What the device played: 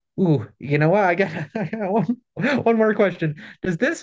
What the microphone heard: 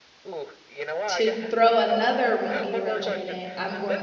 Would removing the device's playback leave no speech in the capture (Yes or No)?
No